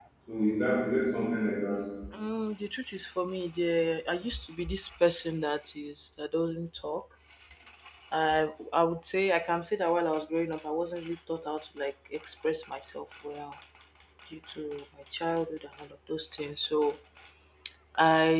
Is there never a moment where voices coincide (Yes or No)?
Yes